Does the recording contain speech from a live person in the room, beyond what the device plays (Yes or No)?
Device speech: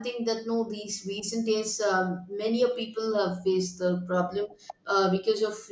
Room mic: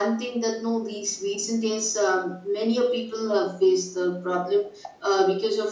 No